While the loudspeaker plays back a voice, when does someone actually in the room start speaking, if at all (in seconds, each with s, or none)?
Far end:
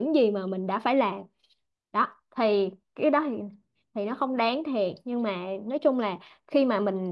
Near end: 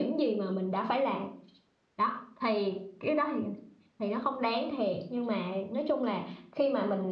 none